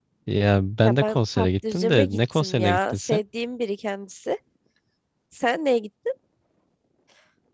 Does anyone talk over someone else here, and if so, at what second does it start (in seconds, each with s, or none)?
0.8 s